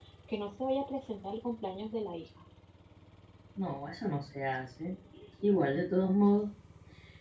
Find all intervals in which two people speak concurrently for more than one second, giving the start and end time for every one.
none

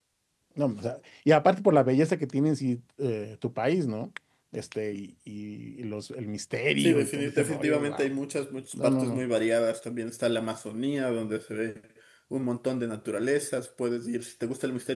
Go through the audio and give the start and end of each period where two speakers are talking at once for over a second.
6.8-8.1

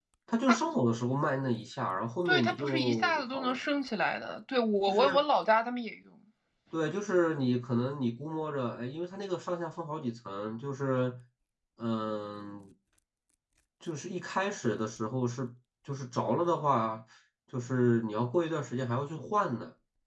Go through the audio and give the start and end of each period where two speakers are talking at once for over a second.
2.3-3.6

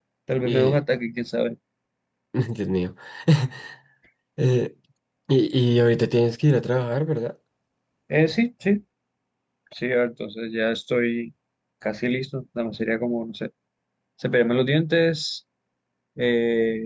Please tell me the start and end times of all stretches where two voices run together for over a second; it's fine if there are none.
none

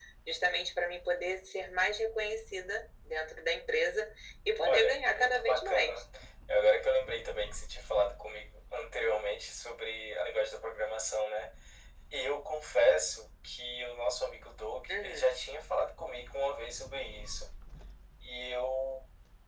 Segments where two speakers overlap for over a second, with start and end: 4.7-6.0

